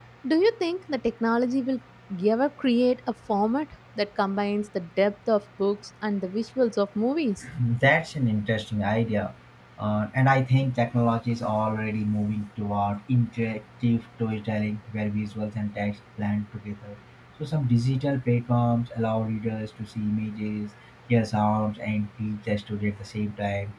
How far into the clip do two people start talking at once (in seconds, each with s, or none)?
none